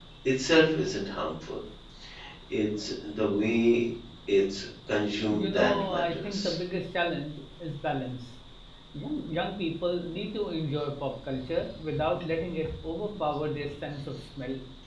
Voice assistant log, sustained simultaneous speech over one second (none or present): present